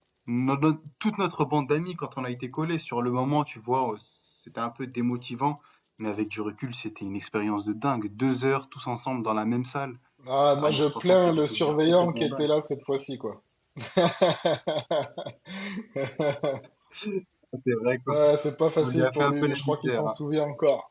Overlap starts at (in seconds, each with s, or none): 10.6 s